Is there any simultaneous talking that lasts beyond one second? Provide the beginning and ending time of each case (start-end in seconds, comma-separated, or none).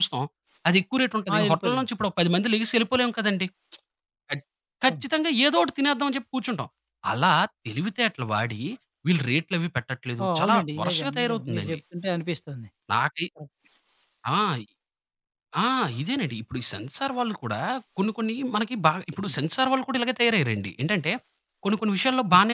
10.2-11.8